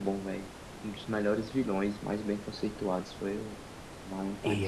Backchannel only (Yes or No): No